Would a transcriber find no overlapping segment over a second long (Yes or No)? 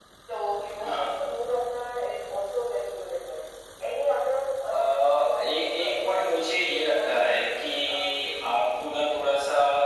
No